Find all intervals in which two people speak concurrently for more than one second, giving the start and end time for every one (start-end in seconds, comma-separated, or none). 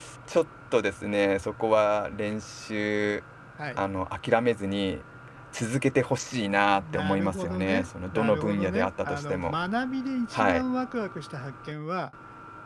6.7-9.6